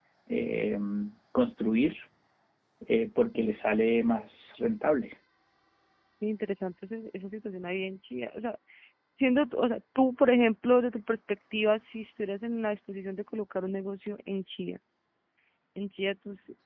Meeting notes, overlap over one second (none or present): none